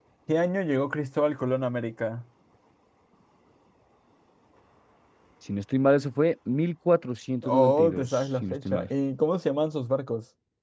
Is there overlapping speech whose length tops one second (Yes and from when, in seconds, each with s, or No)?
Yes, from 7.4 s